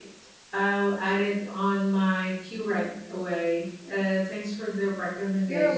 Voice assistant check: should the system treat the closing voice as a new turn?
Yes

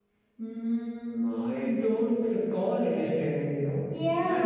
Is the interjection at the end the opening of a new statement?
Yes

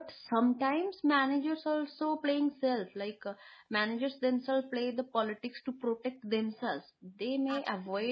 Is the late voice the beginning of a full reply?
No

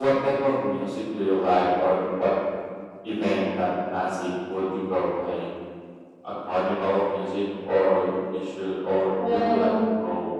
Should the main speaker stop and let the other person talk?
No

